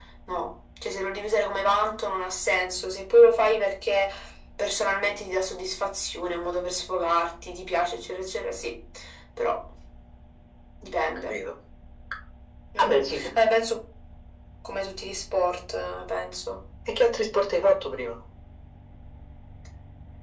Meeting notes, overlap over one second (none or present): none